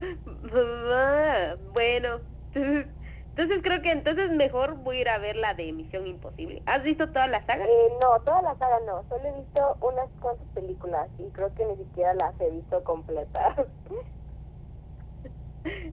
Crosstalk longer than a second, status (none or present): none